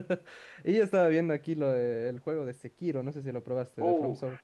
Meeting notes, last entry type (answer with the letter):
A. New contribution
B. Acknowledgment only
A